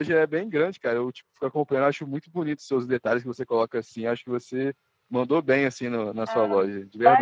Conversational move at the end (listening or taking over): taking over